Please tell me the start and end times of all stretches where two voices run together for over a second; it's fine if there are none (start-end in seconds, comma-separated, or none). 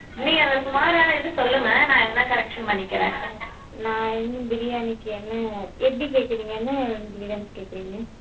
none